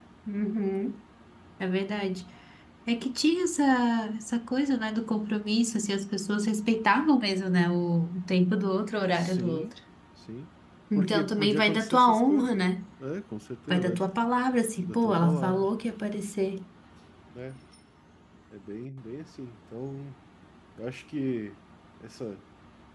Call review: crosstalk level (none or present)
present